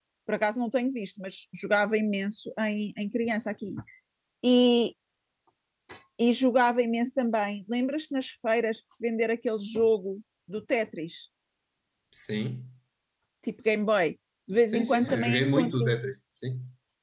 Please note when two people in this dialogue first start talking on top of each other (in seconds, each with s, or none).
14.7 s